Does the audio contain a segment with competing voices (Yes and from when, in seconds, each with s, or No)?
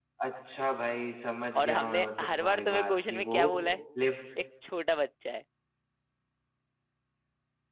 Yes, from 1.6 s